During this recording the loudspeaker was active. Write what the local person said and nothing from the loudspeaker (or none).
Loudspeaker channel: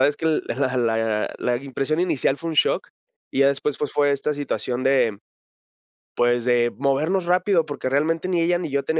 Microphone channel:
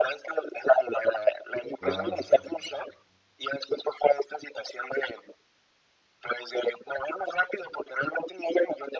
Claro.